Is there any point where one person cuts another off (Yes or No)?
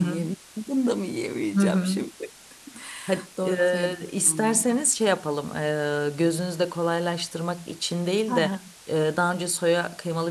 Yes